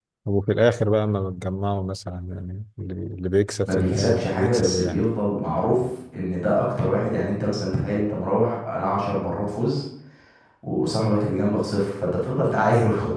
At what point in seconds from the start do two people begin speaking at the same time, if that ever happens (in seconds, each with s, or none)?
3.7 s